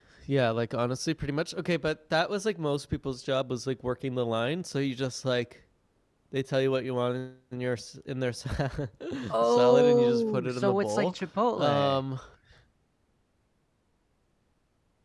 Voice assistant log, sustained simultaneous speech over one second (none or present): present